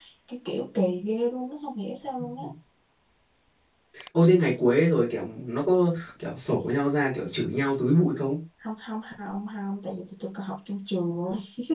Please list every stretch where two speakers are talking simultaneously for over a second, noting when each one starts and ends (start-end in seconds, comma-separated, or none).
none